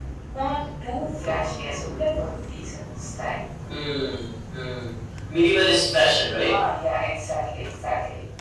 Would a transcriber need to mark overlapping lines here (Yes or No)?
No